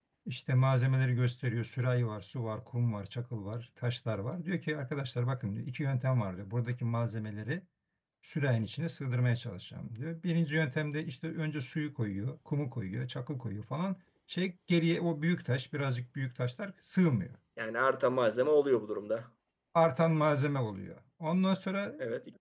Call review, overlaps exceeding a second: none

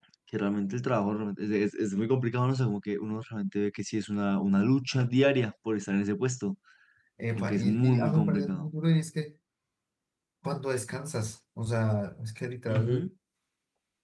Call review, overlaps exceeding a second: present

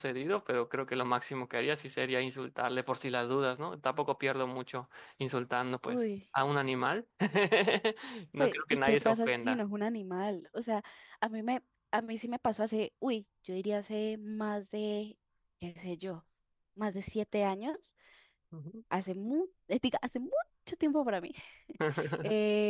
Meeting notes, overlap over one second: present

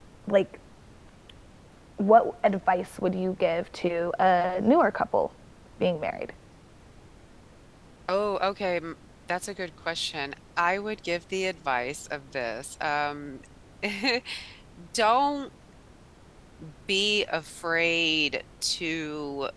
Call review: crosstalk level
none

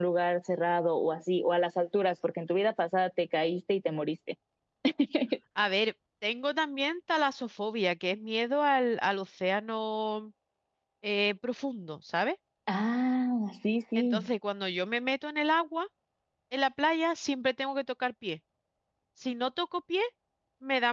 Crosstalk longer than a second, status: none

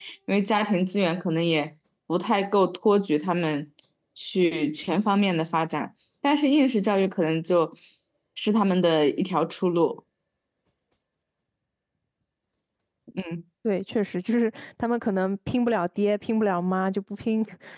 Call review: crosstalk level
none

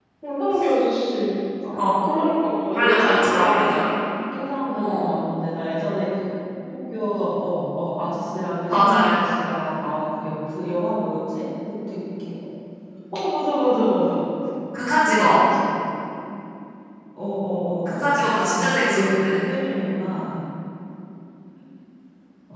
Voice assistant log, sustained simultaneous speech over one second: present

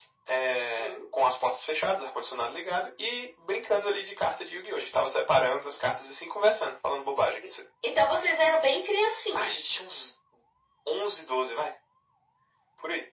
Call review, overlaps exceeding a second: none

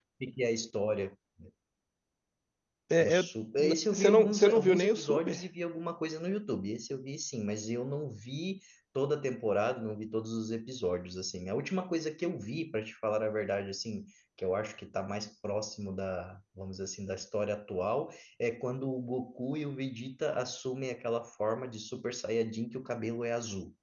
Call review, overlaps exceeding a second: present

